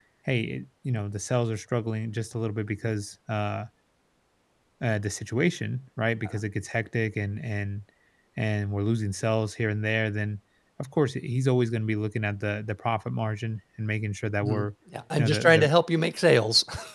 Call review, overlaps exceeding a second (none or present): none